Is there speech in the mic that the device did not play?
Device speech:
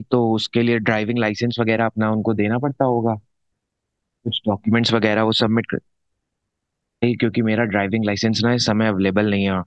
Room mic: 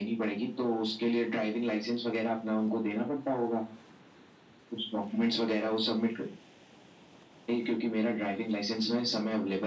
No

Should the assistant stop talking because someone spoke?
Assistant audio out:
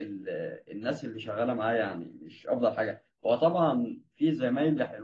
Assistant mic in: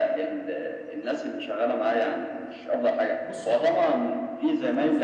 Yes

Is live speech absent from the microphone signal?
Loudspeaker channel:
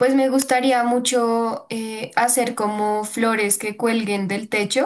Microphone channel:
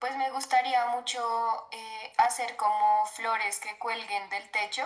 Yes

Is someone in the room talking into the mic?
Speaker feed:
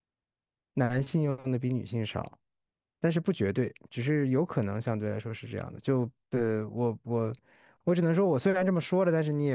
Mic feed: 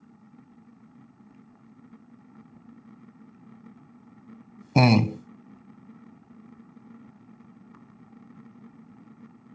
Yes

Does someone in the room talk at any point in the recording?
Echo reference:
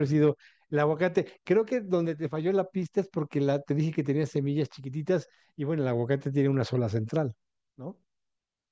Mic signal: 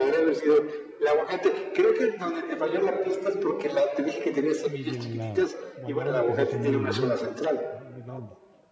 Yes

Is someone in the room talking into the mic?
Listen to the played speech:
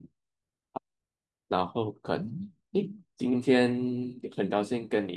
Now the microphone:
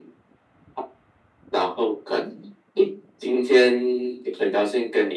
No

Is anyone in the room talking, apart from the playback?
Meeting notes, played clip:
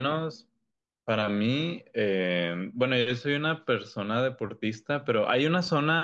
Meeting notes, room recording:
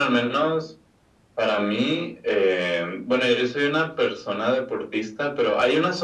No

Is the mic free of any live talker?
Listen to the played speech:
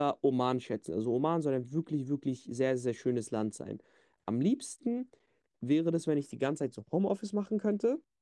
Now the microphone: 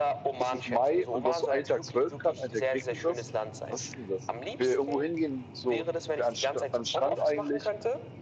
No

